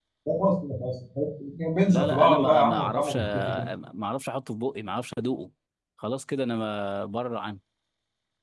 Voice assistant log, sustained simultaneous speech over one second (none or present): present